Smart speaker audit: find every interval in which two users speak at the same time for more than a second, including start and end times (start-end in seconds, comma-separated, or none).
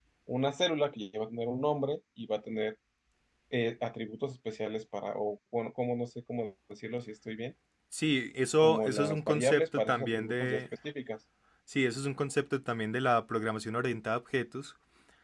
8.6-10.6